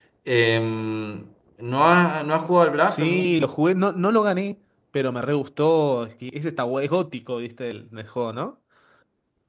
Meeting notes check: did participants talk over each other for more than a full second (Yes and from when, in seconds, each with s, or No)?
No